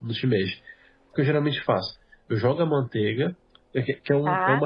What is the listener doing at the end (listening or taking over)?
listening